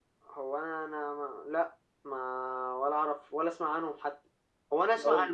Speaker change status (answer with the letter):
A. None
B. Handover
A